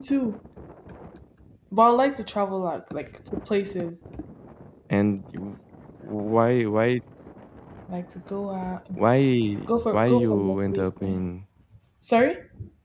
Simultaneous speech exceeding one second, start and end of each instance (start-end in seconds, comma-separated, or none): 9.9-11.2